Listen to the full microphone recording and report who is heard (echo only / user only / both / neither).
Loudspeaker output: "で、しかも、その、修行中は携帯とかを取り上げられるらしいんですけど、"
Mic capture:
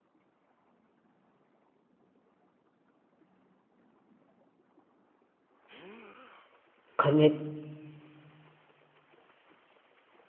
user only